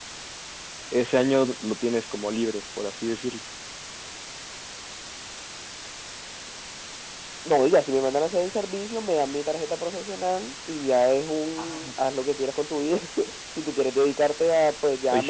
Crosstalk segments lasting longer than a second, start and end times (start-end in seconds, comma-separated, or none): none